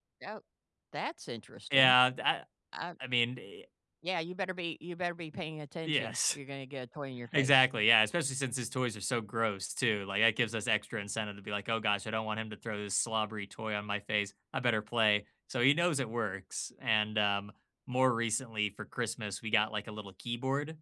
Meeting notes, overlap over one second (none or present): none